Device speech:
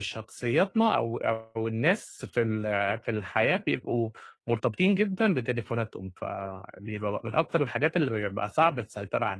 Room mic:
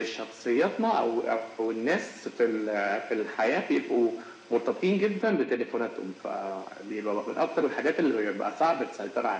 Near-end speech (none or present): none